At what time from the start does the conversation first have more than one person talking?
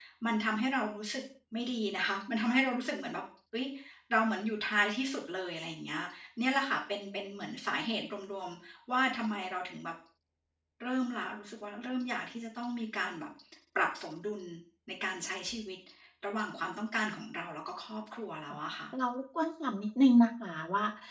none

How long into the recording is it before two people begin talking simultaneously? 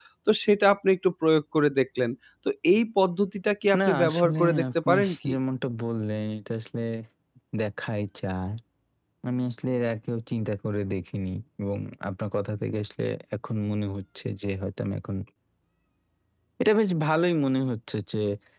3.7 s

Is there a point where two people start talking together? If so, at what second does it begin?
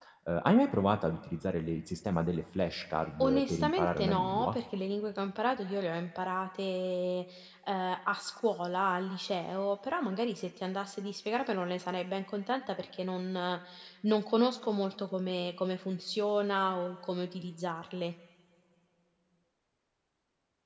3.2 s

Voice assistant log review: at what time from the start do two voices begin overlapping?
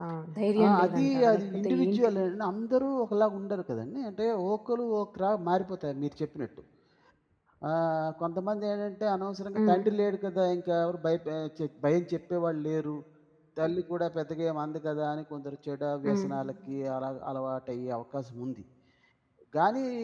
0.6 s

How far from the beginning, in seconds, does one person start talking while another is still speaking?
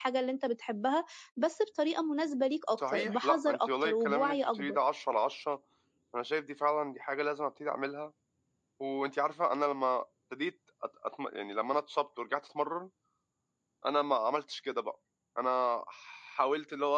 2.8 s

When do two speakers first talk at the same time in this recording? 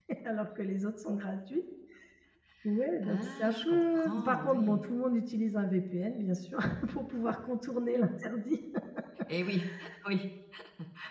3.0 s

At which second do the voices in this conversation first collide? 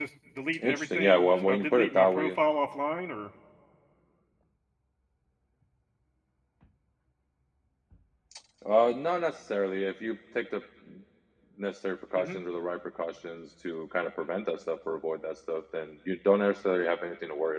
0.6 s

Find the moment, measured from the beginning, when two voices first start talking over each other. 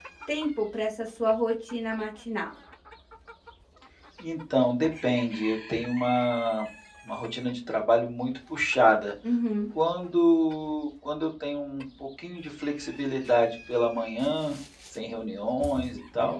none

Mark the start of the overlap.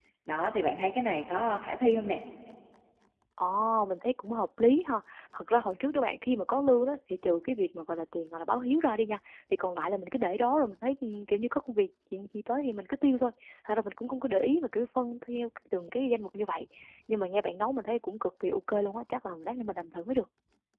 none

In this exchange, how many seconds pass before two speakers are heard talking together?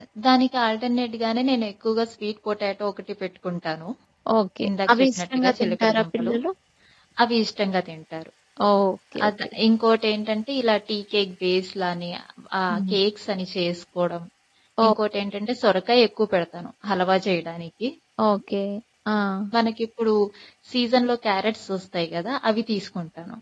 4.7 s

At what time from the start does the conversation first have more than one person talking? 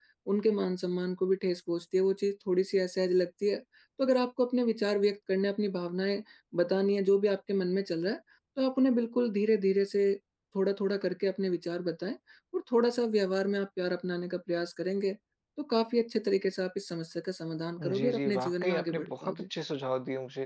17.8 s

